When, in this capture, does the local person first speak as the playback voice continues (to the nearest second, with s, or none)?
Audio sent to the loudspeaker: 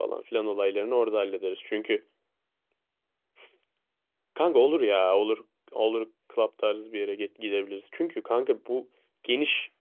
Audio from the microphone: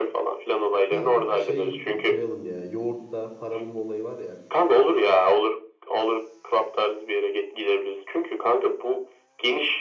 1 s